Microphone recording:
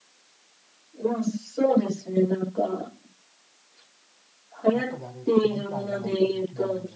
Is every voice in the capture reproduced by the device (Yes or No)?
No